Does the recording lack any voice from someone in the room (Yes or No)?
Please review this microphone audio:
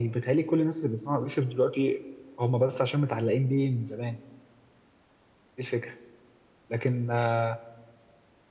Yes